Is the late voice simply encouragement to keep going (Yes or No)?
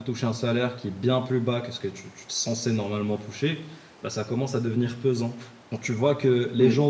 Yes